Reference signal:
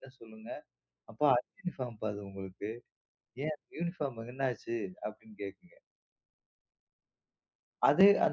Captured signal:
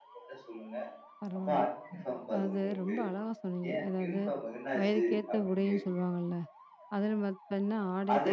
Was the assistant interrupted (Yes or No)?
Yes